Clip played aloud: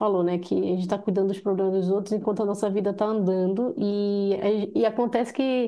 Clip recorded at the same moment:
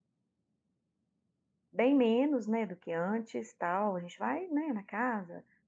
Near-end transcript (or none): bem menos, né, do que antes, tal. A gente vai, né, na casa,